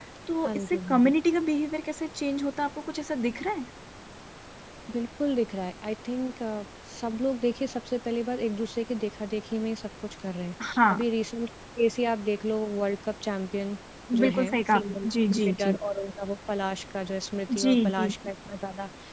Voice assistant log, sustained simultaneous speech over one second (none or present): present